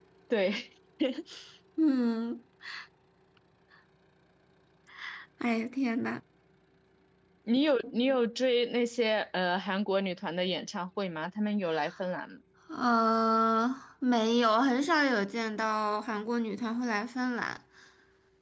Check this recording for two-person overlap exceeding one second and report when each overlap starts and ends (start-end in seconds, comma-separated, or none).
none